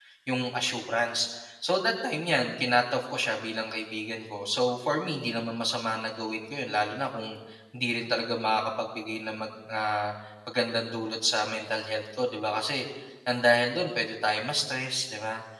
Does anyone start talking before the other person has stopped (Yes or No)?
No